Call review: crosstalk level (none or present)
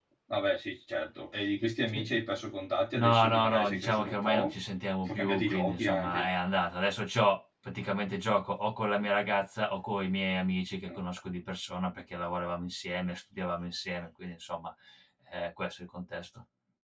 present